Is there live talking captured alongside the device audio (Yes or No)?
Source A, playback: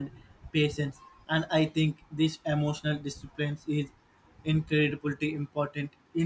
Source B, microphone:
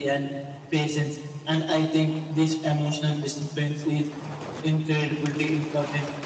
No